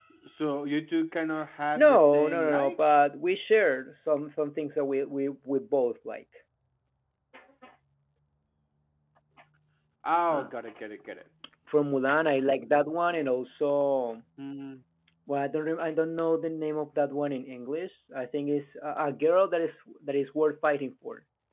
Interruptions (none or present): present